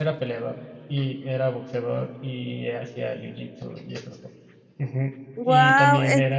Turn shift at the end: No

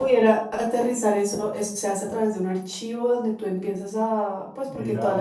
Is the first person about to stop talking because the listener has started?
Yes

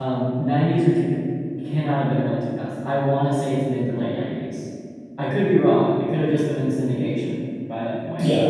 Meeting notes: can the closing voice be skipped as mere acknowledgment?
No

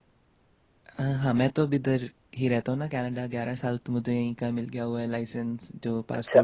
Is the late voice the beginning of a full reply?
Yes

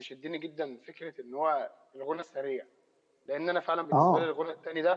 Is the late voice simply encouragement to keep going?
Yes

